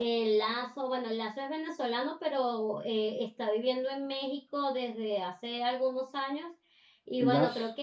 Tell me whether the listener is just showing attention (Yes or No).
Yes